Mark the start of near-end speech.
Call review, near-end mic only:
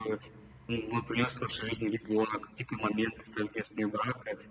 none

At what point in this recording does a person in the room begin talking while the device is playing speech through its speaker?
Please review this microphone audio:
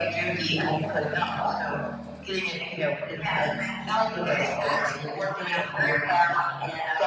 none

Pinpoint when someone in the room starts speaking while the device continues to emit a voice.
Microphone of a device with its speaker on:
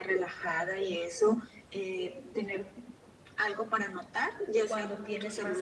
4.6 s

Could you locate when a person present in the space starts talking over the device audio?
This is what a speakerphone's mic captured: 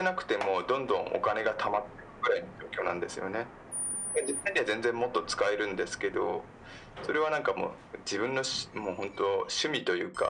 none

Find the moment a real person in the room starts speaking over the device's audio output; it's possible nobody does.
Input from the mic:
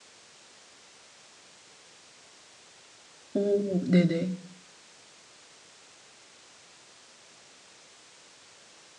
3.3 s

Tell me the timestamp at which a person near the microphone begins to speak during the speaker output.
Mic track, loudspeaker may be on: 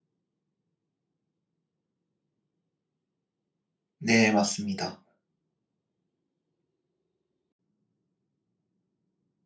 4.0 s

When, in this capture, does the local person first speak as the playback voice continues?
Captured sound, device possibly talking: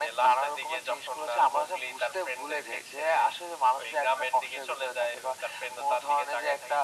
none

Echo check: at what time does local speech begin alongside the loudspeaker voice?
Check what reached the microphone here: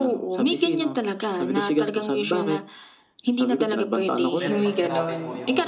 4.4 s

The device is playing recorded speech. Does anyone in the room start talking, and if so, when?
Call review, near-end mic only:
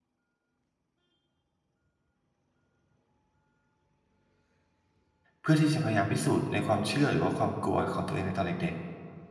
5.4 s

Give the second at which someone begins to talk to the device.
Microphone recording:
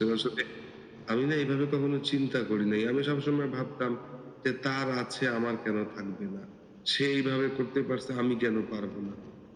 none

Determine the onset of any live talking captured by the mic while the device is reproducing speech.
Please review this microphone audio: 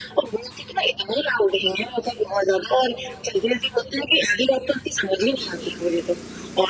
none

